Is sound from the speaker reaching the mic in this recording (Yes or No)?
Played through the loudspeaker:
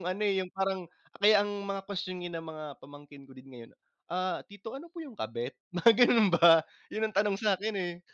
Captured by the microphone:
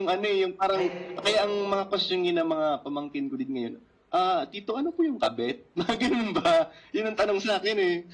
Yes